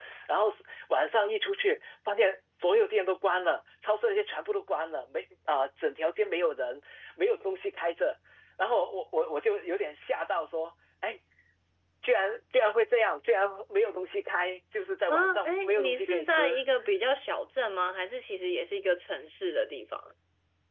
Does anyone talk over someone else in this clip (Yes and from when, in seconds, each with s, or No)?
Yes, from 15.1 s